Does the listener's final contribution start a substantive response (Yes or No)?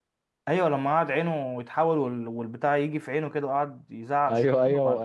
Yes